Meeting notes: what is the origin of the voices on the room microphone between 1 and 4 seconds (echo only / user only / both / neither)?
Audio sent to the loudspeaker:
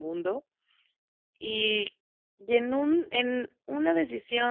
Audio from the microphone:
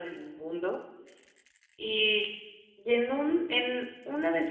echo only